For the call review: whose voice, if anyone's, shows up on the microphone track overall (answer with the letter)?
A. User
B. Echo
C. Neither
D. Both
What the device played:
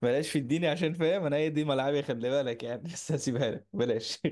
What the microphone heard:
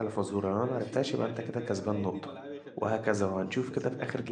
D